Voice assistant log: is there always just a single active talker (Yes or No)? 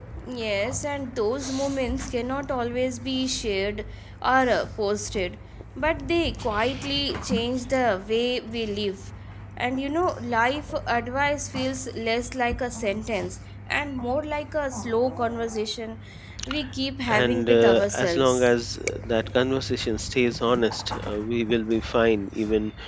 No